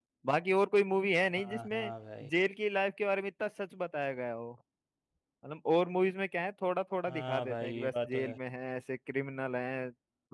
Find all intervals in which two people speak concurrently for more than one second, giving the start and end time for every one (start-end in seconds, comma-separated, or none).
7.1-8.3